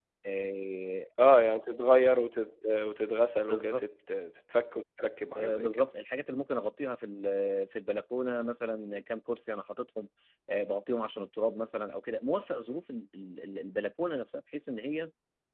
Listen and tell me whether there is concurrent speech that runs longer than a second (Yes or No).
No